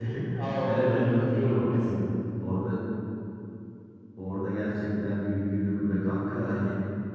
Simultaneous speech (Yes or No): Yes